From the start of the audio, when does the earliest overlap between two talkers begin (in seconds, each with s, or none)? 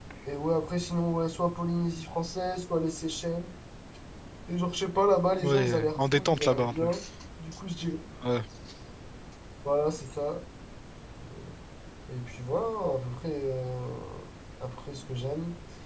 5.4 s